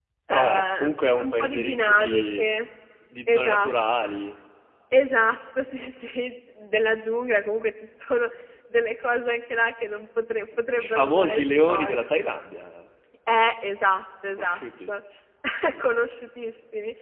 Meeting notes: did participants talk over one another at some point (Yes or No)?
Yes